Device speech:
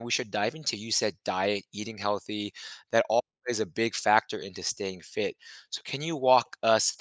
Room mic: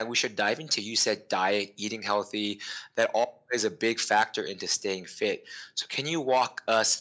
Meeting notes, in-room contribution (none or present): none